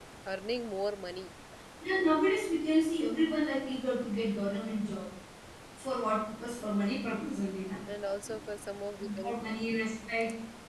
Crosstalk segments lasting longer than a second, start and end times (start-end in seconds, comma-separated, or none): none